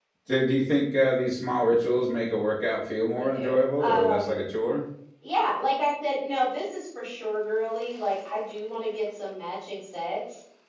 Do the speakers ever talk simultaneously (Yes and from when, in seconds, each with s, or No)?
Yes, from 3.1 s